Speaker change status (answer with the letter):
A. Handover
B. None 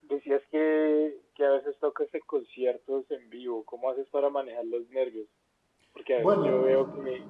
B